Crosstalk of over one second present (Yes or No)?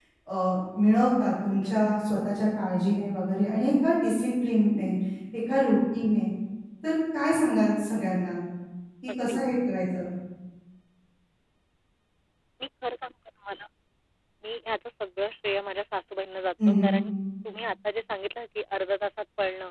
No